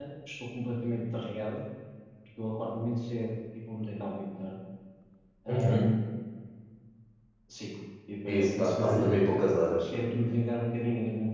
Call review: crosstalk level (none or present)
present